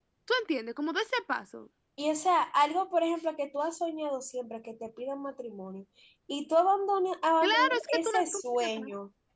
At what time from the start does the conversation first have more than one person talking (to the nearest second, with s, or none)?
7 s